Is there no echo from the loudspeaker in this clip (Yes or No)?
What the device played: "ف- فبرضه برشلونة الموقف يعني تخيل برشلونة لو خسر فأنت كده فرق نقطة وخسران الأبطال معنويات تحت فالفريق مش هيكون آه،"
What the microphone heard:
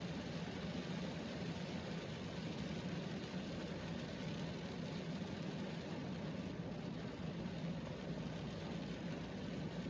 Yes